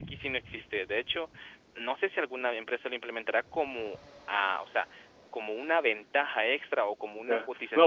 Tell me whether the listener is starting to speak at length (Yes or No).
Yes